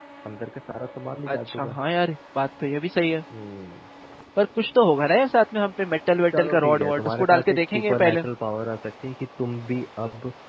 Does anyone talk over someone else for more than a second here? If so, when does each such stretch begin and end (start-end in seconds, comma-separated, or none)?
6.4-8.2